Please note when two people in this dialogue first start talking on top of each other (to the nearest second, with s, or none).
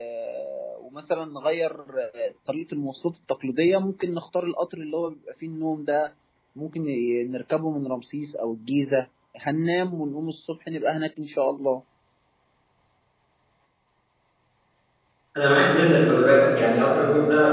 none